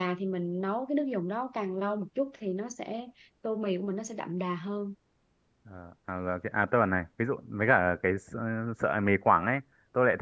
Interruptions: none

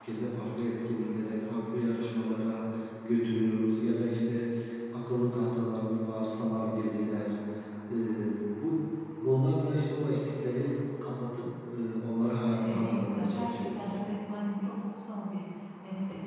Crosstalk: present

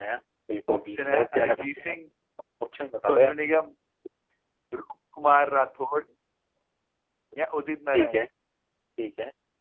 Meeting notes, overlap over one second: present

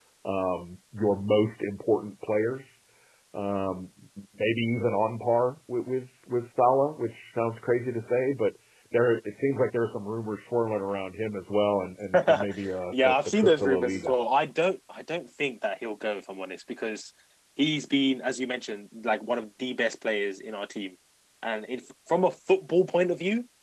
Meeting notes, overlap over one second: present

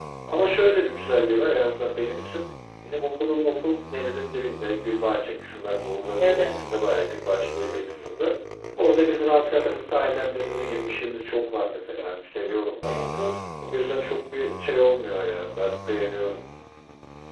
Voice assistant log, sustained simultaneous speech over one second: none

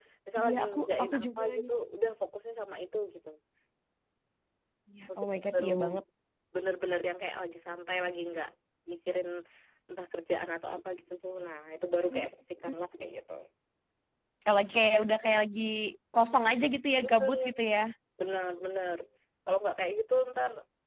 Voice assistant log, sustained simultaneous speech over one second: present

